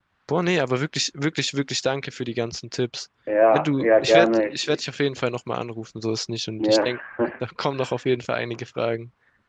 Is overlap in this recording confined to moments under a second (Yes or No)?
No